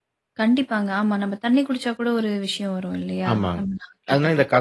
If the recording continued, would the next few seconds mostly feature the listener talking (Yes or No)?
Yes